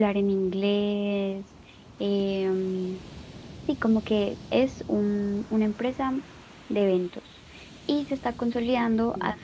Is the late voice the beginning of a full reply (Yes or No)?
No